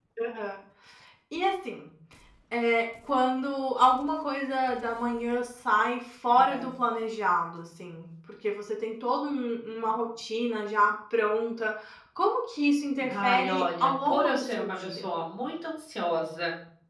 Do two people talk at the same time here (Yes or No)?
Yes